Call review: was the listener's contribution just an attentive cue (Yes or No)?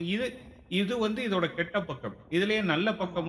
Yes